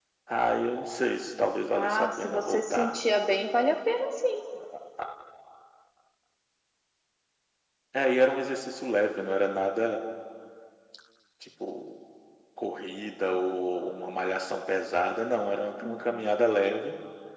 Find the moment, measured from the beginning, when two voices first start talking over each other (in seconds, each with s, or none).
1.7 s